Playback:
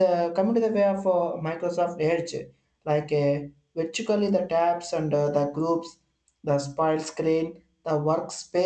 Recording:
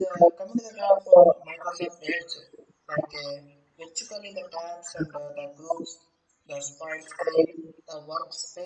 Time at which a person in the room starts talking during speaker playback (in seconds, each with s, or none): none